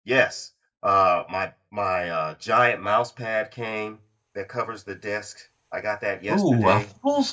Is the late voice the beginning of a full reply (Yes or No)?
Yes